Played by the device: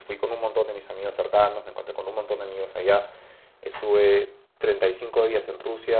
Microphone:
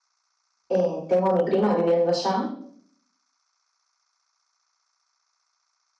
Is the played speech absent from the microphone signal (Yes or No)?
Yes